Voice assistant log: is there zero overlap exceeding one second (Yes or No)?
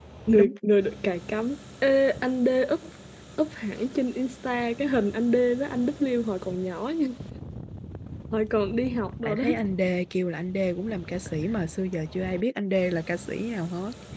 Yes